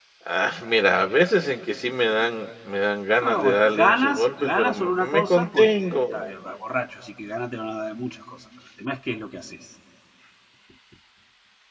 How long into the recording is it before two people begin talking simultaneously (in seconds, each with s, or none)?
3.2 s